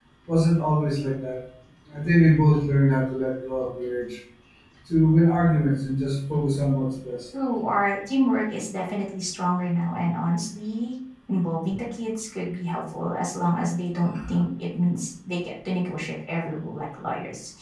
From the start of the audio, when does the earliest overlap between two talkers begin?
none

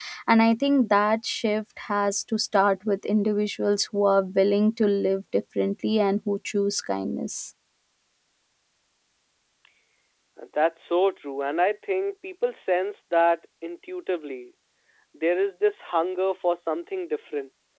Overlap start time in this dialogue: none

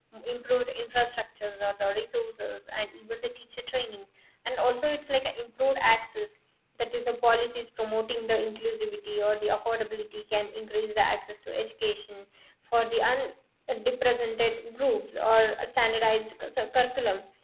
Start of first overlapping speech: none

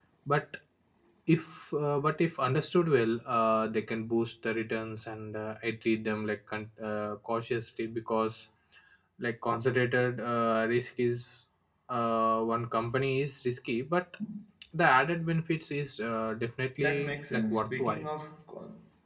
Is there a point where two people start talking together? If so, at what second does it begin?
16.8 s

